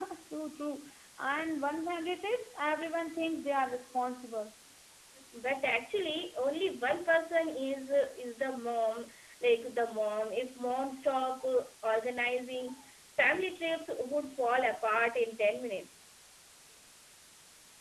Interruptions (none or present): none